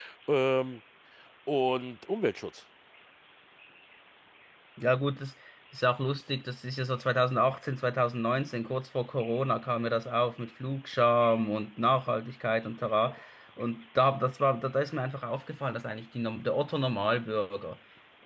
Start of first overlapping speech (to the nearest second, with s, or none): none